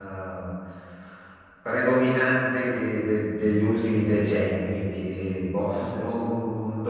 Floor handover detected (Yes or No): No